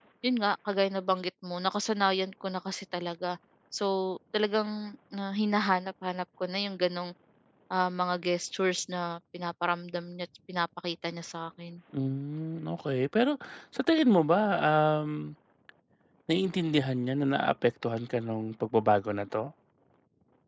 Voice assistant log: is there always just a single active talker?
Yes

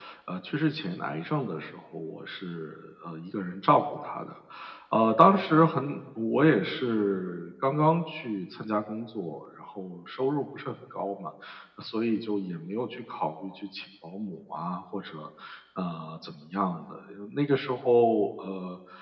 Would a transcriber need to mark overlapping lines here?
No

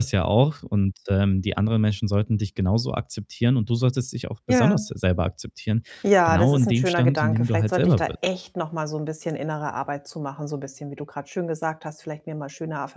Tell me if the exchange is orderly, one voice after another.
No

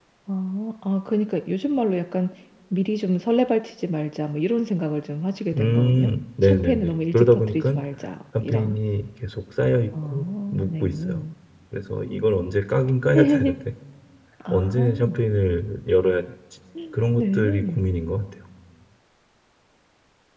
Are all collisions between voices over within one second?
No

